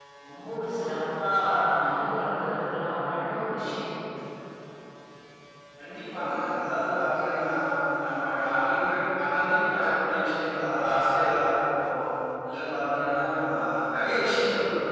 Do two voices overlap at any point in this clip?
No

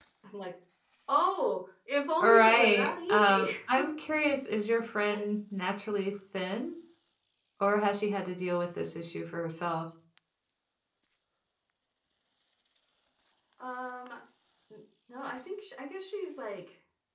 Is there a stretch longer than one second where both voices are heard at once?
Yes, from 2.2 s

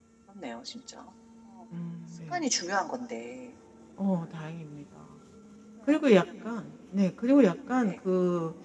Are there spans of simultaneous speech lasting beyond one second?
No

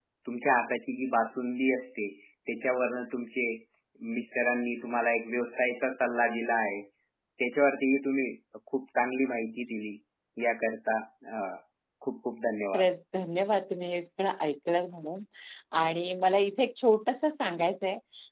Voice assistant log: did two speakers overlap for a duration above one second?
No

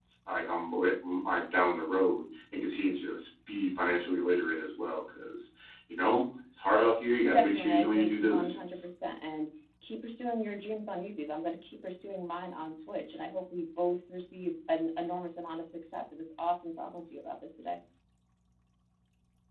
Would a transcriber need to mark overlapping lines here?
Yes, from 7.2 s

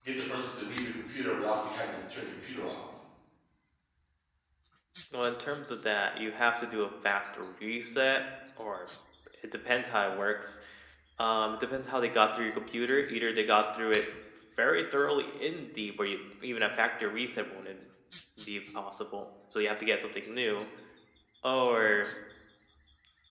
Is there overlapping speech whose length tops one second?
No

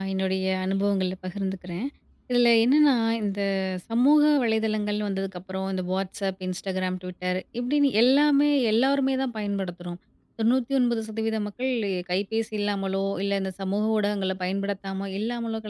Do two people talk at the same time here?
No

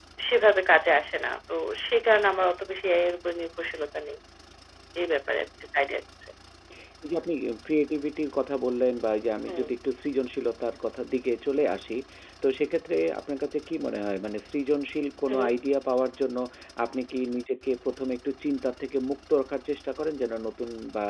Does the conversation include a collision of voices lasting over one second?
No

